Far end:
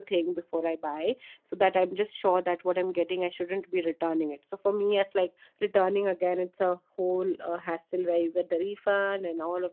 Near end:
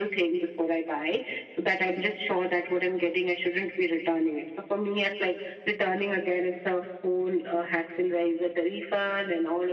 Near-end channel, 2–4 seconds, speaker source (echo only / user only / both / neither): echo only